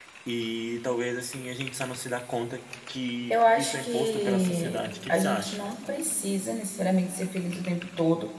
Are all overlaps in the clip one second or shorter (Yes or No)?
No